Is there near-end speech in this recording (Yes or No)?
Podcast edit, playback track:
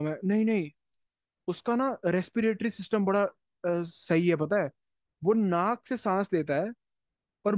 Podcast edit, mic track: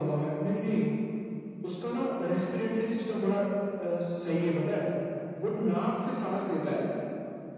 No